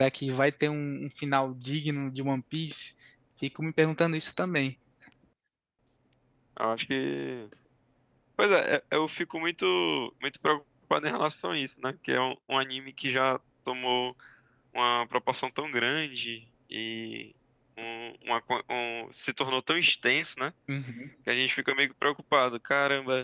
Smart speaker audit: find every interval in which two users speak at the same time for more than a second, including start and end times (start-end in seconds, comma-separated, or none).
none